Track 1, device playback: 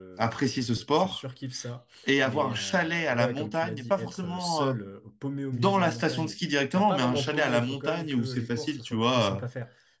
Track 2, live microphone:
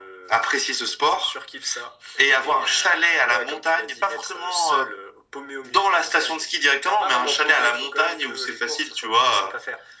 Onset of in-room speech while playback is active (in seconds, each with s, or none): none